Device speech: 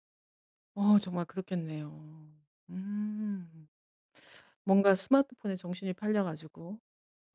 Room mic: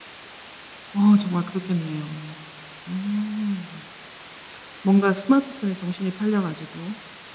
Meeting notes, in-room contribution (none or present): none